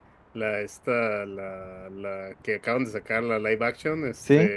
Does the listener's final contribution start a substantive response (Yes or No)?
No